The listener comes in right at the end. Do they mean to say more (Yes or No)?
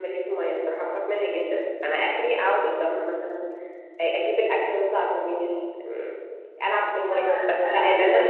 Yes